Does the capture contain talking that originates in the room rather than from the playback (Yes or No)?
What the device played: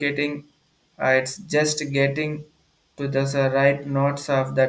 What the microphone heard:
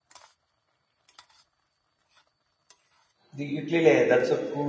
Yes